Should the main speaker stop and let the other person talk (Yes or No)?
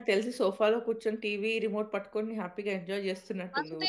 Yes